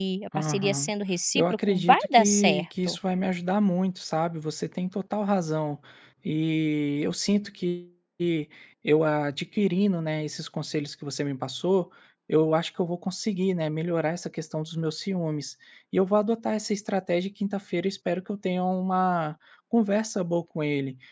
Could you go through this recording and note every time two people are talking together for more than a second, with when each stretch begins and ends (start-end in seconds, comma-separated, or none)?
1.4-3.0